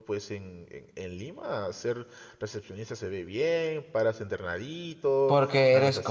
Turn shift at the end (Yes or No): Yes